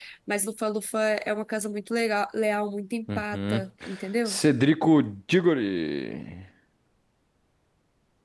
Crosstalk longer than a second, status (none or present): none